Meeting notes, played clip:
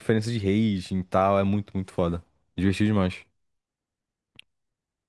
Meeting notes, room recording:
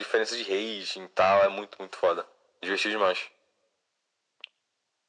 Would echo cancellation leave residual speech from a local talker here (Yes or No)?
No